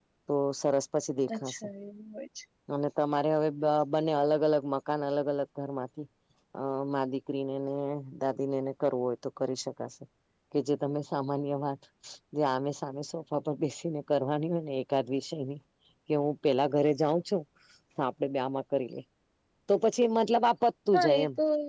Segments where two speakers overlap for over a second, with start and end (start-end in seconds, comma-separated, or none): none